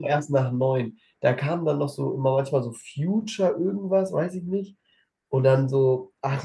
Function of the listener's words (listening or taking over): listening